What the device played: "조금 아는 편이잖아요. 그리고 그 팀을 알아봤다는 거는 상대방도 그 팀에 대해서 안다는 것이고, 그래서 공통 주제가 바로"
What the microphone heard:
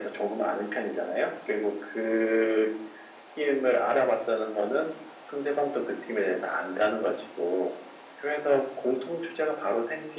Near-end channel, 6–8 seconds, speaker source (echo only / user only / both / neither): echo only